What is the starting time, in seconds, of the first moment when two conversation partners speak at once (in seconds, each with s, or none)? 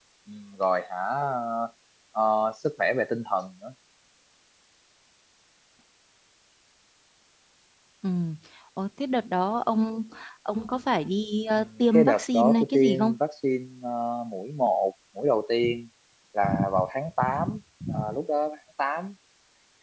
11.5 s